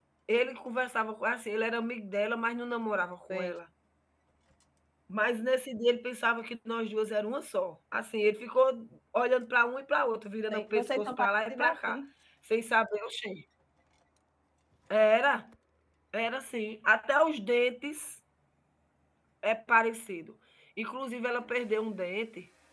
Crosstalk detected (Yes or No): Yes